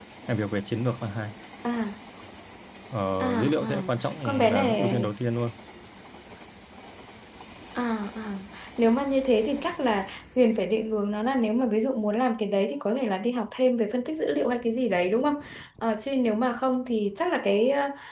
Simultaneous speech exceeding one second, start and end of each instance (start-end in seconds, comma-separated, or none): 3.2-5.1